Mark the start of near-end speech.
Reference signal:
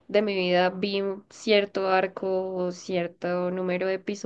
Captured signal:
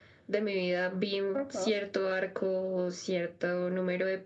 1.3 s

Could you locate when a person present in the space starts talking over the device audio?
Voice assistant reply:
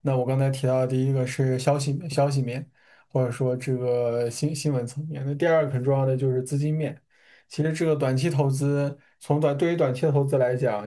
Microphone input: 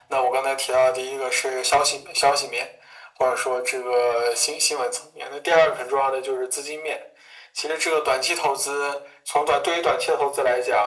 none

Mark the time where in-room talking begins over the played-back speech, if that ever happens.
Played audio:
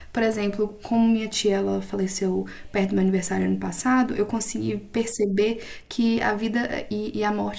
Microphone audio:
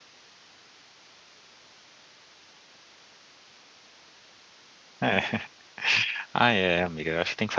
5.0 s

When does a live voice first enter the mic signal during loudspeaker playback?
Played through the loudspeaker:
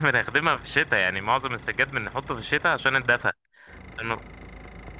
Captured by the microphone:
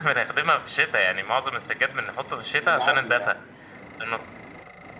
2.6 s

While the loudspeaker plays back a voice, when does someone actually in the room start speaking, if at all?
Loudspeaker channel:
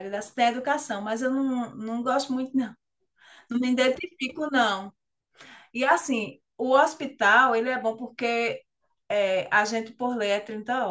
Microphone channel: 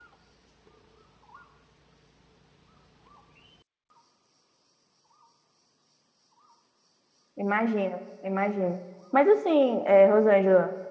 7.4 s

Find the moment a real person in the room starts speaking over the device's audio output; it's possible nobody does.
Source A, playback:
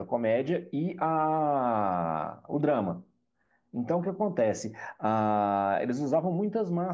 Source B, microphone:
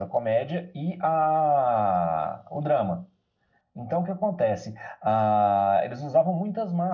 none

